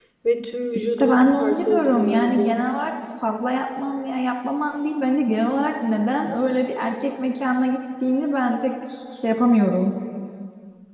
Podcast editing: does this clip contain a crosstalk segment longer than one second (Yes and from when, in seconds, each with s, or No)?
Yes, from 0.8 s